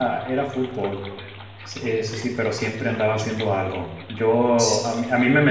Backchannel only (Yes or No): Yes